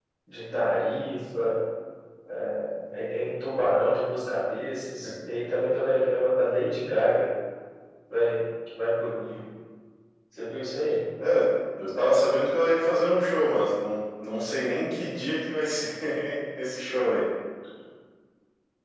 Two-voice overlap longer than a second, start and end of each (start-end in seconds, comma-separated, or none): none